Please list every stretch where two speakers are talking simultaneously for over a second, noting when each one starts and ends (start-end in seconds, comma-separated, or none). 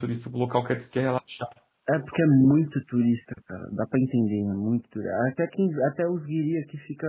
none